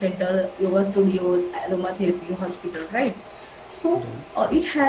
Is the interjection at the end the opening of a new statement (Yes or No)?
No